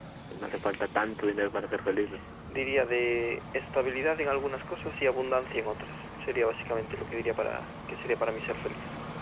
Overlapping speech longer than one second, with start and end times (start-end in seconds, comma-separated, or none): none